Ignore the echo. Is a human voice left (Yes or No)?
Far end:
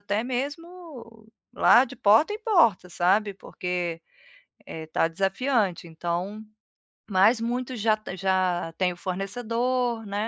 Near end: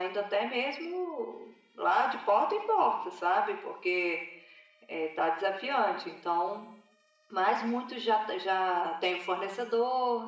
No